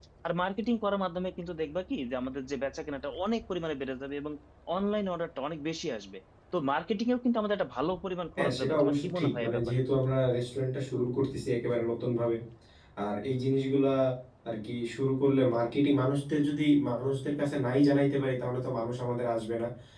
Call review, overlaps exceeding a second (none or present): present